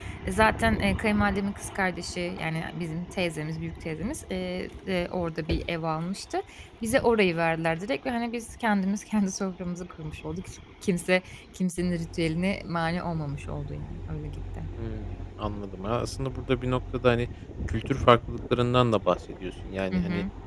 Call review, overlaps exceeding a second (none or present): none